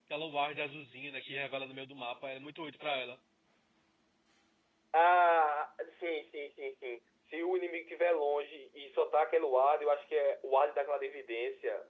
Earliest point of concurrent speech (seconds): none

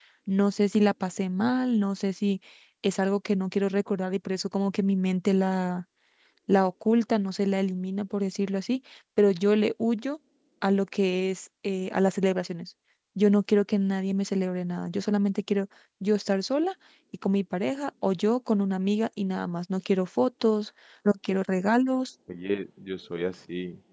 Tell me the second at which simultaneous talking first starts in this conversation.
none

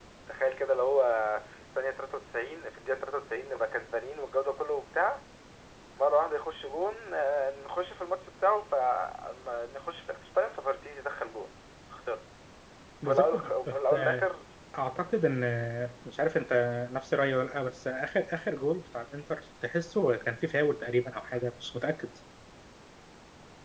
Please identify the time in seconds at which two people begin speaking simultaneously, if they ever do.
13.0 s

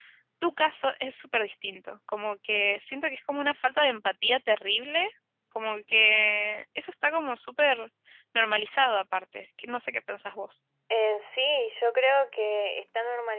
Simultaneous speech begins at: none

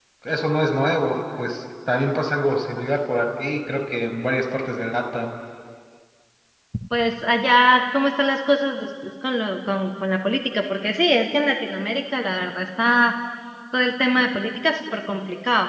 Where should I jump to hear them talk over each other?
none

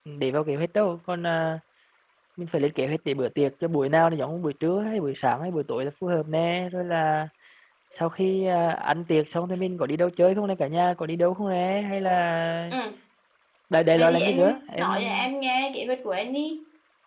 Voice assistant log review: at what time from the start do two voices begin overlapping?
13.9 s

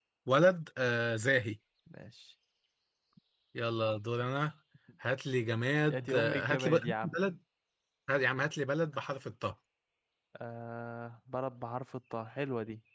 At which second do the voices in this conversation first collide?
5.9 s

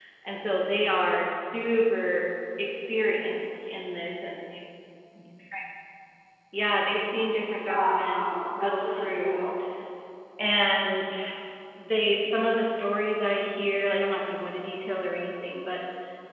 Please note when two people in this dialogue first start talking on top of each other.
7.7 s

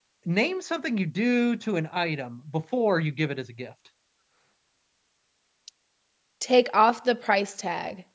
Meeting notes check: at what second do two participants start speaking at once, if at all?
none

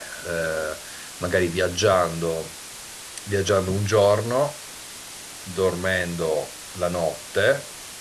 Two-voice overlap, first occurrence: none

